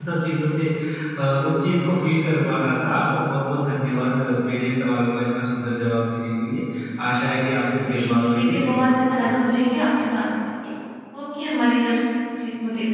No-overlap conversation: No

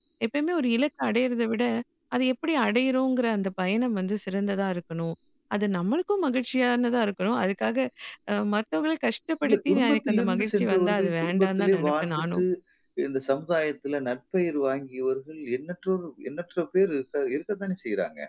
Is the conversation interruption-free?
No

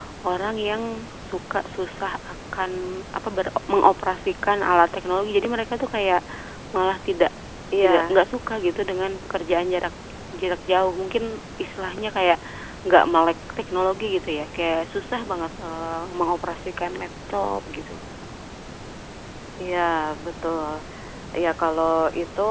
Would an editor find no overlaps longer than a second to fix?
Yes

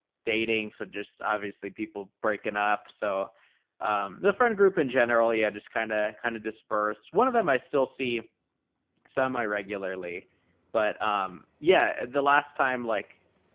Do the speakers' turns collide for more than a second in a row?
No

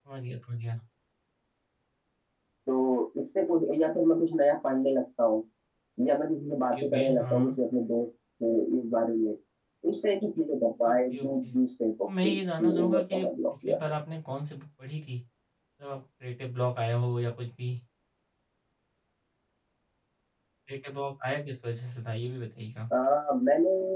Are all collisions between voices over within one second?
No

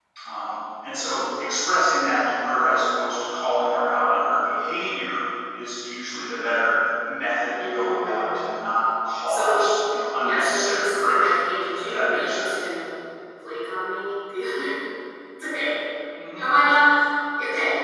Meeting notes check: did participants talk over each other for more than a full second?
Yes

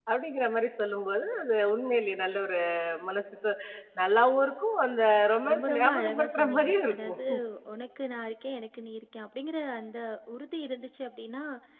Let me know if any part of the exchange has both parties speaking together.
Yes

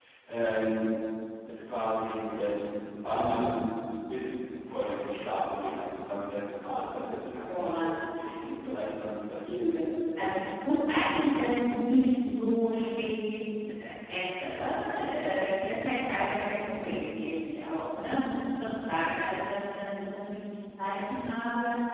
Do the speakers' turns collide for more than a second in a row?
No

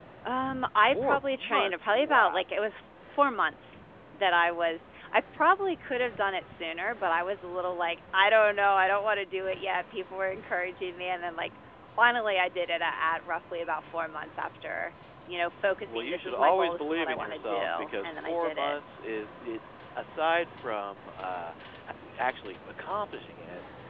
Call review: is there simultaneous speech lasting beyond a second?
Yes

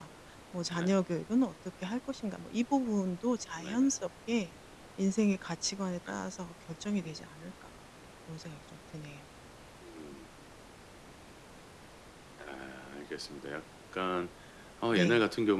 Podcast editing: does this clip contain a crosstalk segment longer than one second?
No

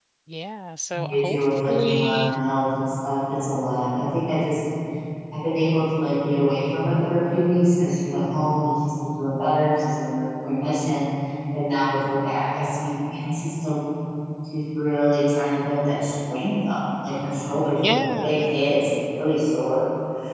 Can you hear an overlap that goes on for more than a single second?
Yes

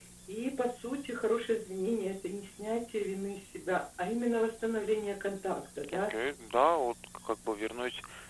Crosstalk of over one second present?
No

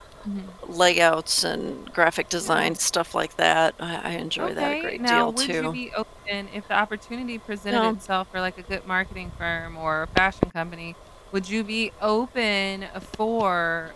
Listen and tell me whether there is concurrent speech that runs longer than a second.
Yes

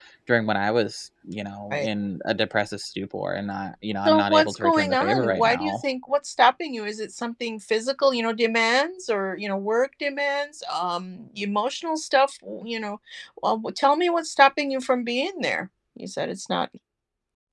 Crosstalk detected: Yes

